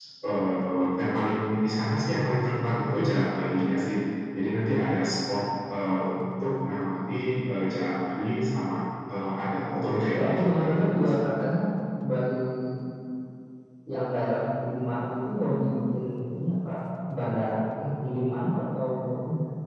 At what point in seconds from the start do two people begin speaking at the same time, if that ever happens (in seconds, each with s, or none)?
9.7 s